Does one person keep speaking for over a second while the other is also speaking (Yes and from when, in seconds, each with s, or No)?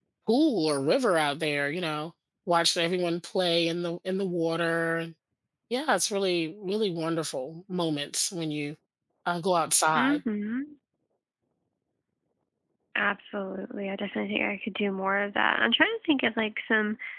No